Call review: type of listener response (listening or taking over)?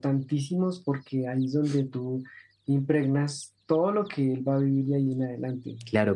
taking over